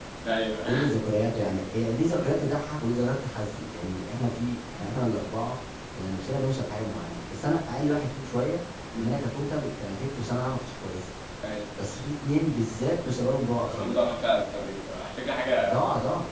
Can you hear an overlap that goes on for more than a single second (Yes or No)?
No